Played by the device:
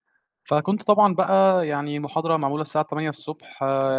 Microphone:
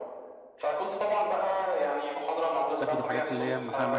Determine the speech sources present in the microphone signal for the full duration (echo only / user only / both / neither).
both